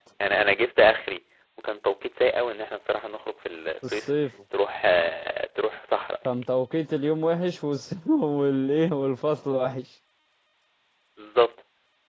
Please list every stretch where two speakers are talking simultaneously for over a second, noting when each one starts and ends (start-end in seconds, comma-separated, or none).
none